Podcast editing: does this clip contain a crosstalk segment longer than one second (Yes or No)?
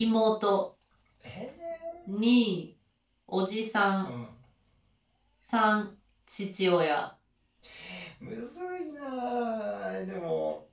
No